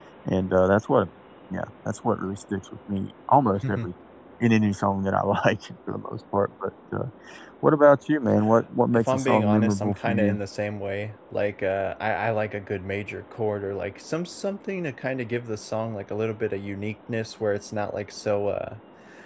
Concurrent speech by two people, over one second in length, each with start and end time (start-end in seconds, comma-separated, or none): 8.9-10.4